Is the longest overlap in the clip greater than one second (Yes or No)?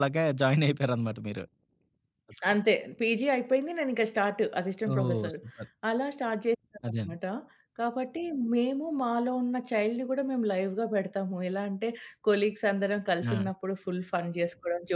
No